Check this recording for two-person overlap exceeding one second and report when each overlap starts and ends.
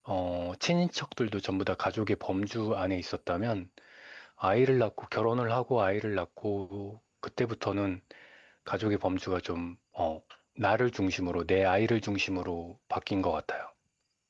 none

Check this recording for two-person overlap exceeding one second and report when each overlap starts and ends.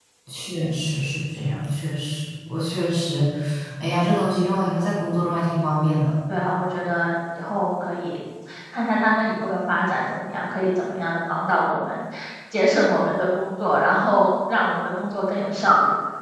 none

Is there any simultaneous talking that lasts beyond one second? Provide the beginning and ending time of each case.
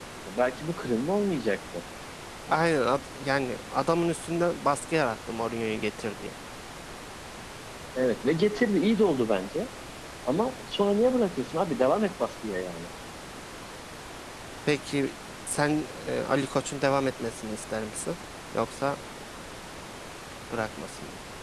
none

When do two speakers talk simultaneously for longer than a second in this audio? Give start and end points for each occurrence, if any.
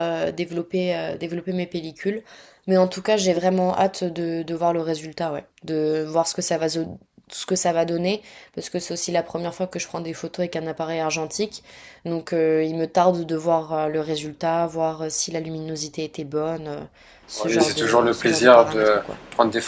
17.4-18.9

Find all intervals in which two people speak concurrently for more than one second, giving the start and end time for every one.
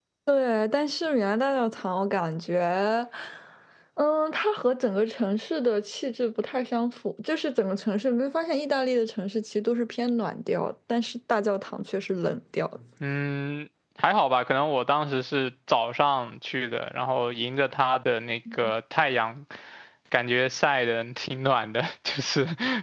none

